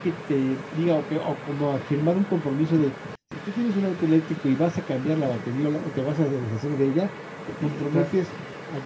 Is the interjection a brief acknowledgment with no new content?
Yes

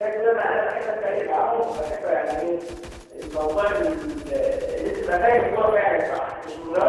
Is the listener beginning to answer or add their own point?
No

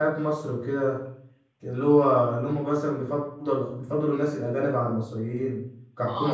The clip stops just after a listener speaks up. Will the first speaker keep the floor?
No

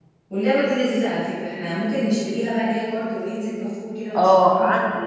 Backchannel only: No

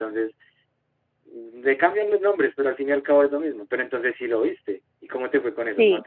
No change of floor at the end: No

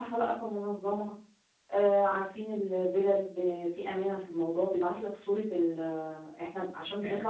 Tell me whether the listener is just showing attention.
Yes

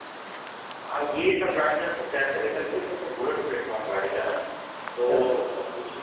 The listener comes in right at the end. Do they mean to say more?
No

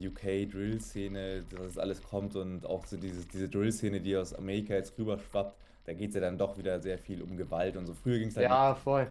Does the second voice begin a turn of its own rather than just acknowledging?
Yes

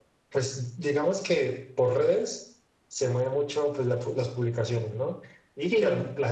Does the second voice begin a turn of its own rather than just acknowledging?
No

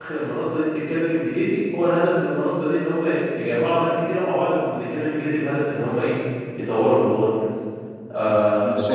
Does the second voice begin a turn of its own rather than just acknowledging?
Yes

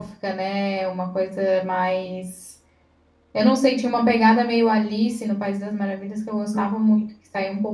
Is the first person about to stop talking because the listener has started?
No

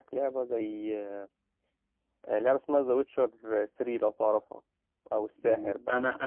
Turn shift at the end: Yes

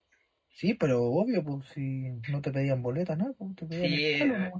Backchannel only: No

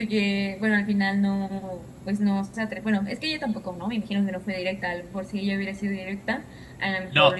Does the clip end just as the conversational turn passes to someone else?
Yes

